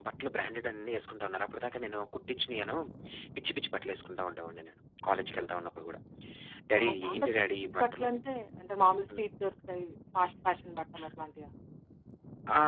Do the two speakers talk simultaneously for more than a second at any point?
Yes, from 6.8 s

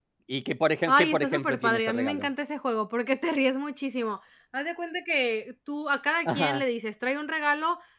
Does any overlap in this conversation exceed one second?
Yes, from 0.9 s

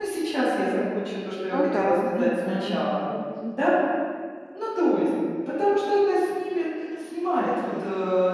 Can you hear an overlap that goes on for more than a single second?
Yes, from 1.5 s

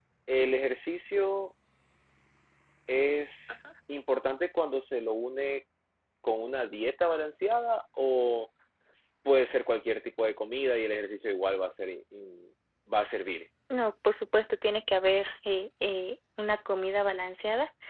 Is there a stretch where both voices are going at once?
No

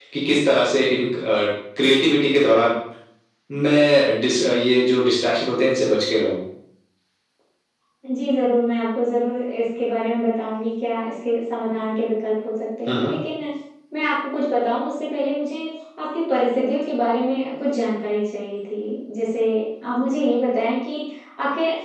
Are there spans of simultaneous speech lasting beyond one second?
No

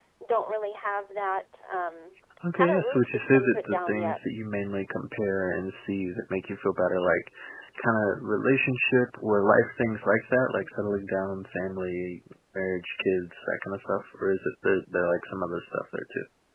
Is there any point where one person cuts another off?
Yes, from 2.4 s

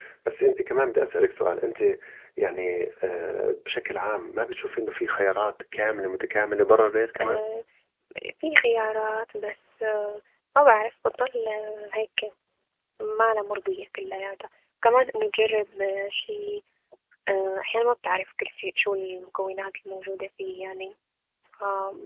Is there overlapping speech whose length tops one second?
No

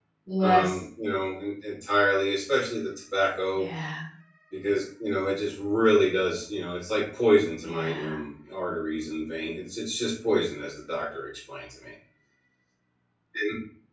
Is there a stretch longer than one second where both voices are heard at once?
No

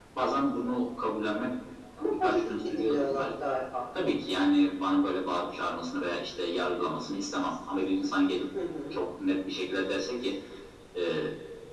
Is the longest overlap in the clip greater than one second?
Yes, from 2.0 s

